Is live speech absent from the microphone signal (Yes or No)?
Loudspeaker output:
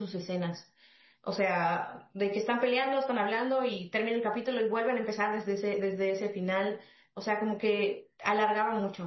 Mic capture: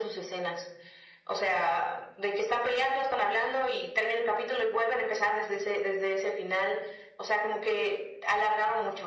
Yes